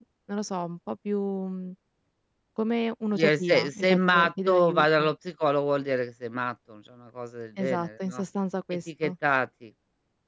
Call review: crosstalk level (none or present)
present